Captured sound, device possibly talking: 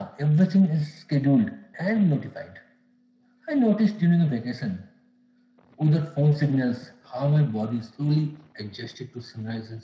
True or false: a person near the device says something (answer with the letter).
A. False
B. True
A